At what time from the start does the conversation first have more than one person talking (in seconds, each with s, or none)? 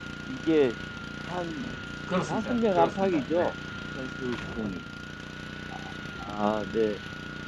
2.3 s